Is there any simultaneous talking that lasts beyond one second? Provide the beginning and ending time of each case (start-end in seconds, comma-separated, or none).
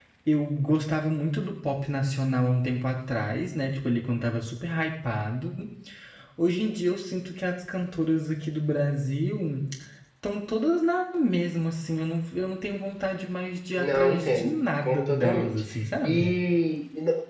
13.8-15.6